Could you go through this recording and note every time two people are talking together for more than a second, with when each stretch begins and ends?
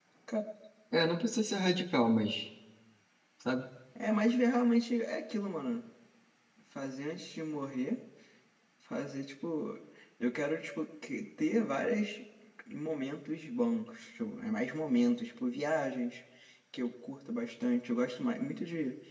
none

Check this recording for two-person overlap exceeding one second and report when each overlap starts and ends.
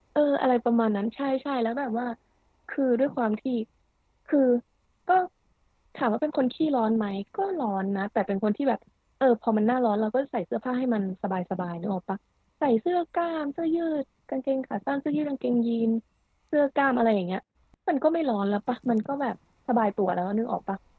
none

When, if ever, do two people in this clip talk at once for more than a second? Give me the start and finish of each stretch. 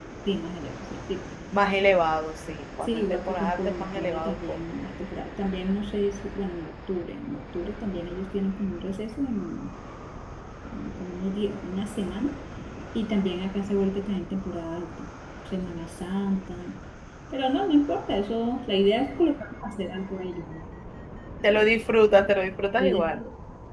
2.8-4.6

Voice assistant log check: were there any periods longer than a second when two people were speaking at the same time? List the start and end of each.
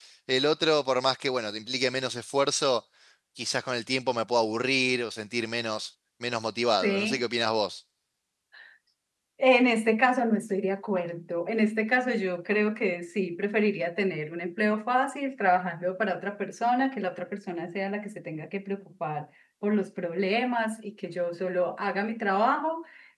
none

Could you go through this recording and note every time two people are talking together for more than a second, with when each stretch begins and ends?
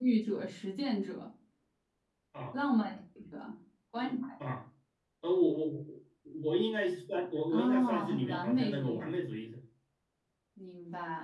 7.5-9.1

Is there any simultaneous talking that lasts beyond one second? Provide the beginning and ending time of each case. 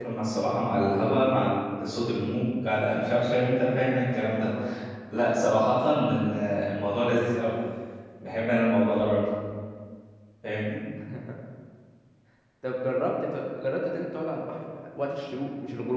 none

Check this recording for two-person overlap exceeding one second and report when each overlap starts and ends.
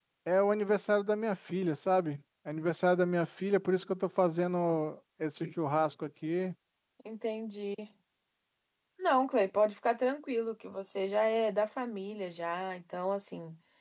none

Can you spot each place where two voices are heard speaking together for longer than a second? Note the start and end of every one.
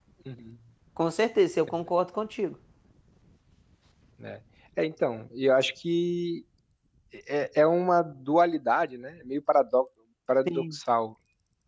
none

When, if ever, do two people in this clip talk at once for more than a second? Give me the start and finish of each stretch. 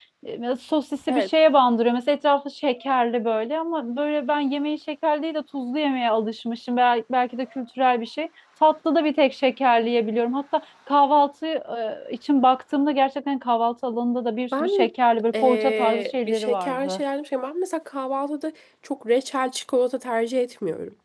15.3-17.0

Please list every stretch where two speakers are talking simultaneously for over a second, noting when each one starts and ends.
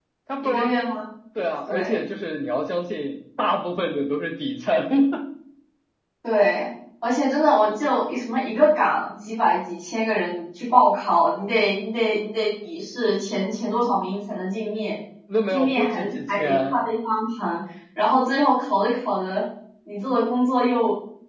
15.5-16.8

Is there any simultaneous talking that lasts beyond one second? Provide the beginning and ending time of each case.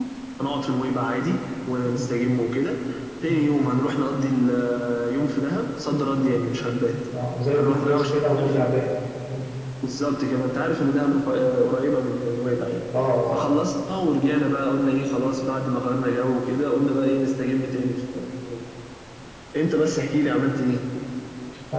7.6-8.8

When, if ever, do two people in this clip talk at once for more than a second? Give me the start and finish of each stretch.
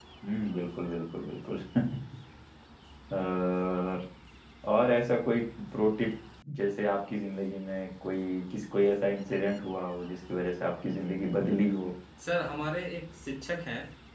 none

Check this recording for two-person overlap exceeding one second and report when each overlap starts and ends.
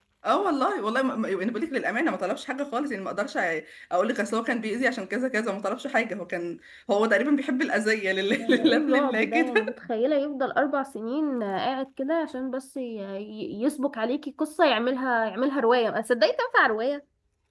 8.4-9.8

